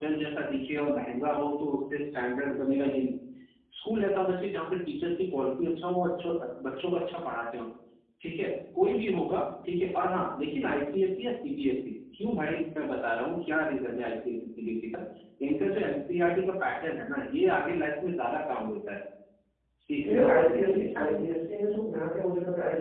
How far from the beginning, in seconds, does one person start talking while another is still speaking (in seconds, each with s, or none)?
20.0 s